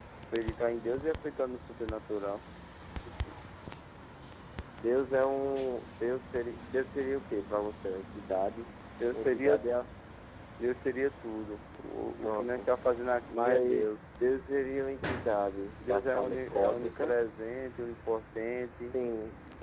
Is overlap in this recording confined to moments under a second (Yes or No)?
No